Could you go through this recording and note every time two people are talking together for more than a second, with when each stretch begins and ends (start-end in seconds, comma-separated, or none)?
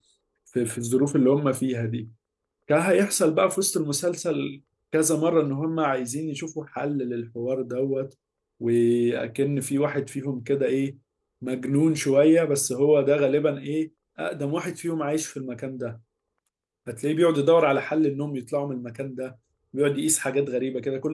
none